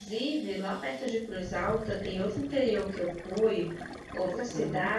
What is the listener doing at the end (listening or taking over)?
listening